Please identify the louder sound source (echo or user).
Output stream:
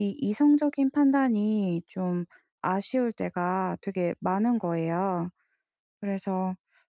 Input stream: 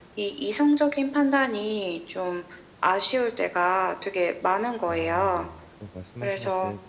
echo